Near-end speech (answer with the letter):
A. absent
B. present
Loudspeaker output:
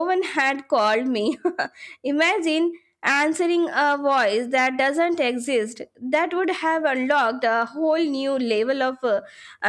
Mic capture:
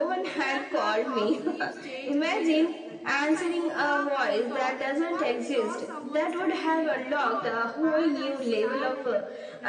B